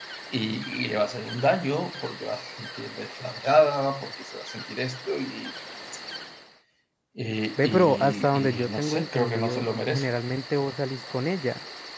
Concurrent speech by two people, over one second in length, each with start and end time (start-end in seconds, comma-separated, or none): 7.6-10.1